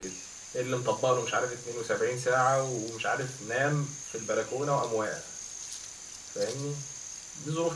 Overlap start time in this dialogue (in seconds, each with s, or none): none